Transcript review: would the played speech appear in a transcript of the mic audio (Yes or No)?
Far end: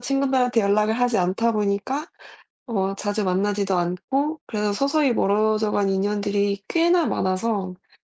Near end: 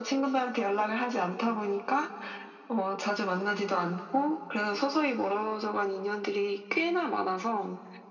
Yes